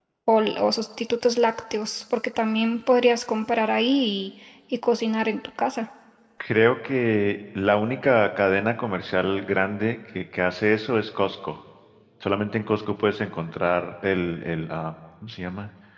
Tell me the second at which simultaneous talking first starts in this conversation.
none

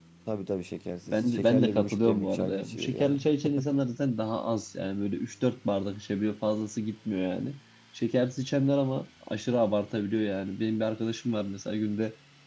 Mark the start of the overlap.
1 s

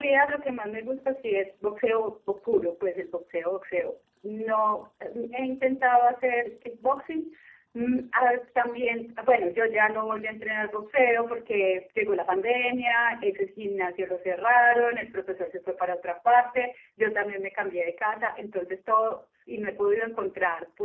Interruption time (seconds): none

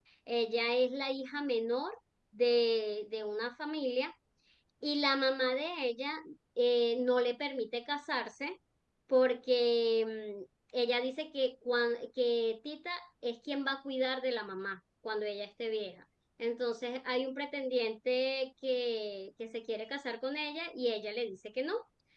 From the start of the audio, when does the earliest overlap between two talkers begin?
none

